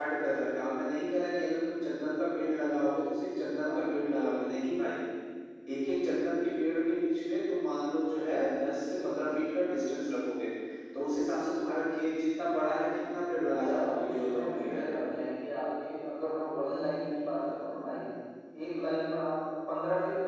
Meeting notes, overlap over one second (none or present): present